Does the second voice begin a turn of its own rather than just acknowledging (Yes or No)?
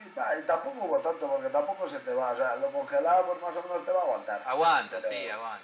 Yes